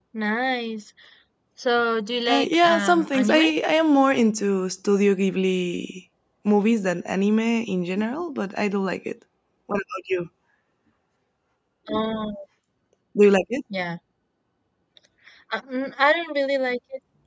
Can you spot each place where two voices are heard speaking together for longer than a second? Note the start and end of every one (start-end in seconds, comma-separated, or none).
2.3-3.5